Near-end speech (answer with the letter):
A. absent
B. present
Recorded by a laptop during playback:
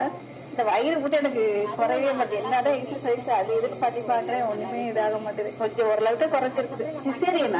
B